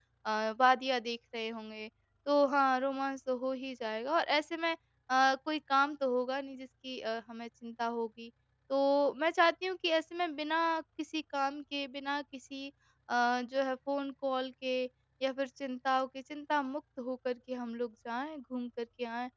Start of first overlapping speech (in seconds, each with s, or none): none